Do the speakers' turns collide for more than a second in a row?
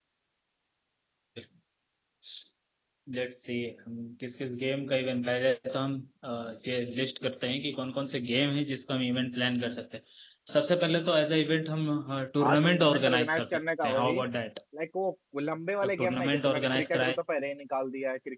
Yes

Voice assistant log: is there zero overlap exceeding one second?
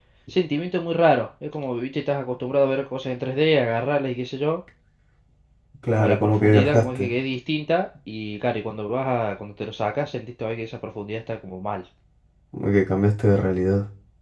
No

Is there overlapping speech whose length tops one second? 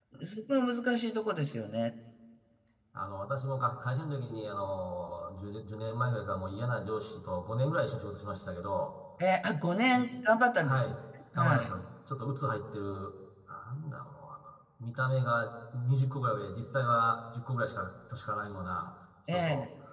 No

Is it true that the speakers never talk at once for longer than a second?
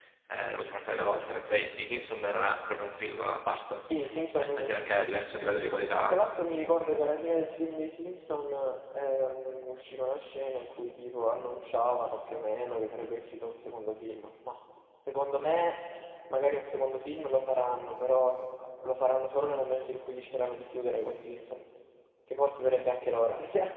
Yes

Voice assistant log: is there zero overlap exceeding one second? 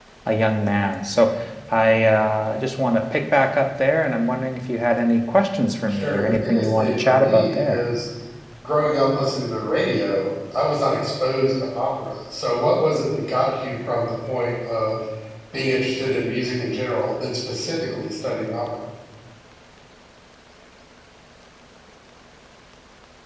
No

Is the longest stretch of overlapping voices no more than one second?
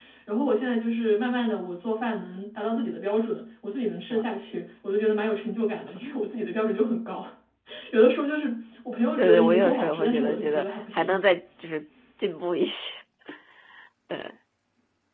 No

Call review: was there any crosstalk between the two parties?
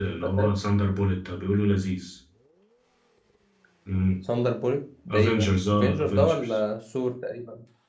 Yes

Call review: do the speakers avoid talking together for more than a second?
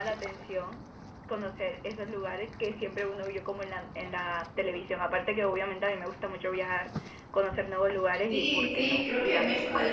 No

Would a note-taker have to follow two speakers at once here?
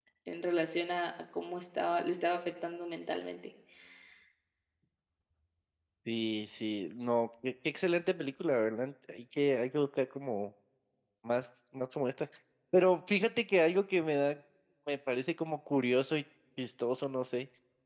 No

